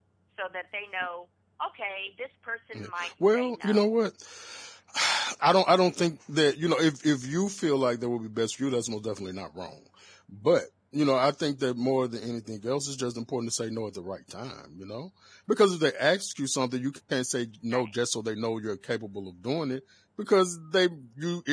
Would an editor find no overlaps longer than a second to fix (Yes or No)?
No